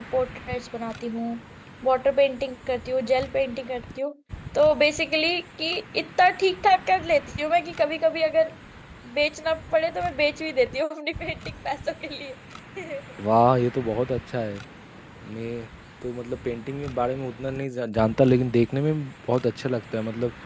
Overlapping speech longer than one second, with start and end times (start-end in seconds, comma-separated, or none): none